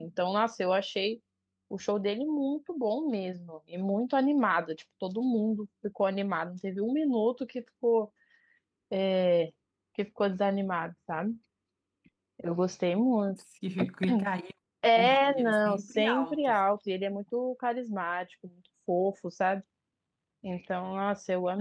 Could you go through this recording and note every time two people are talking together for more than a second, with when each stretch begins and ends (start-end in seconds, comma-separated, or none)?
15.0-16.6